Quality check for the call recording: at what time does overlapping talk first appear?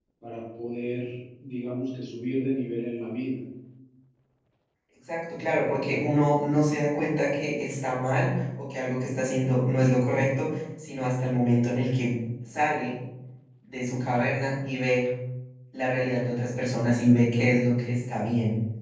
none

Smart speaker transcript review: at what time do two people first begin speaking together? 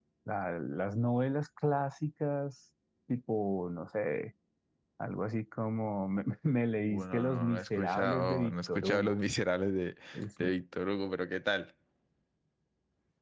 6.8 s

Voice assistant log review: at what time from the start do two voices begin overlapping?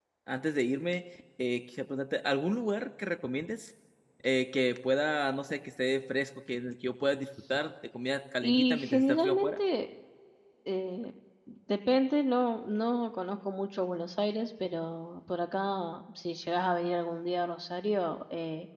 8.4 s

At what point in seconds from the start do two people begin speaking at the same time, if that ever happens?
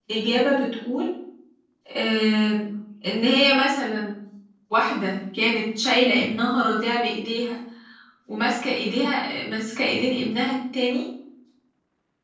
none

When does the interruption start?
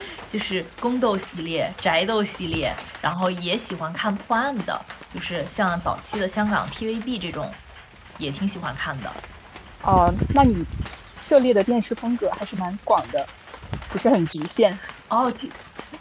none

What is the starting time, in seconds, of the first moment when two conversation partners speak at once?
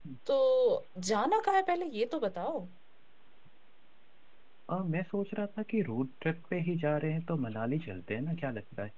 none

